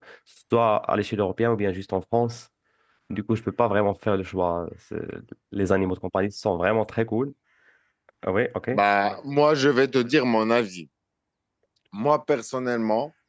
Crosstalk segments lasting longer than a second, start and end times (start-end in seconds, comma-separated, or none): none